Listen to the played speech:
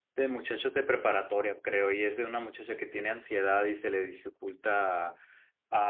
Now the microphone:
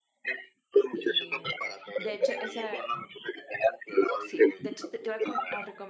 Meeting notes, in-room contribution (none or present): present